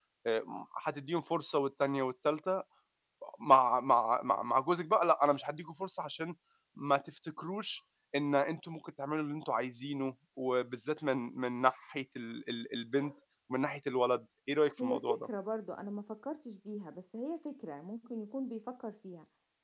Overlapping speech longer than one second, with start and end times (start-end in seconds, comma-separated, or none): none